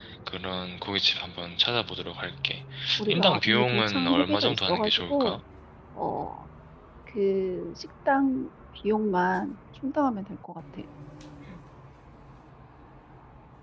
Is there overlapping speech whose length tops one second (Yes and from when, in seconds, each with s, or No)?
Yes, from 3.1 s